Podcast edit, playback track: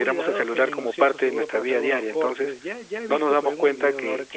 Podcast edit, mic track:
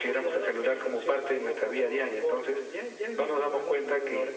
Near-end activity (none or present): none